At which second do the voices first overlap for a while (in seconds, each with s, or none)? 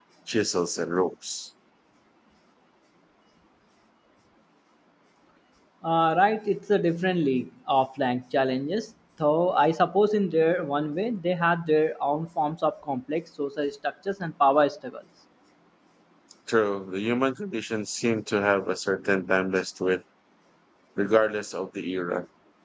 none